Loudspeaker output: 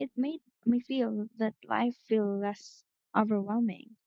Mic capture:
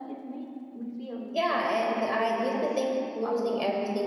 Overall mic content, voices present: both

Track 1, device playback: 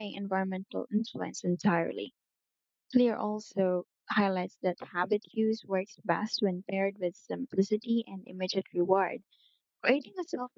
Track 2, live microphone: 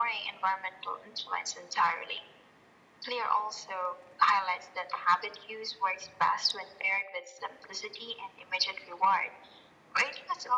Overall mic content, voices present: echo only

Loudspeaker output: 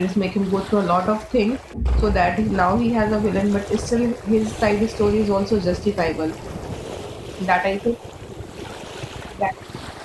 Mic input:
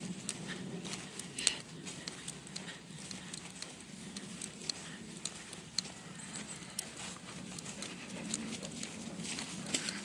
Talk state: neither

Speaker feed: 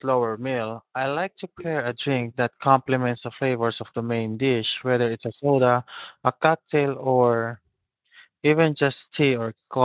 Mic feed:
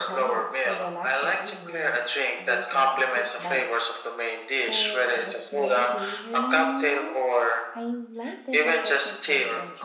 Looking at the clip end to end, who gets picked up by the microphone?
both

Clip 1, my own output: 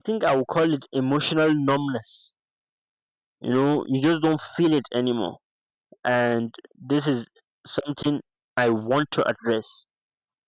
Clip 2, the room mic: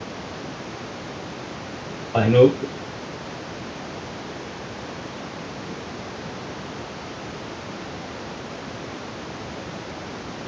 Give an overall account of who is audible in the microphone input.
user only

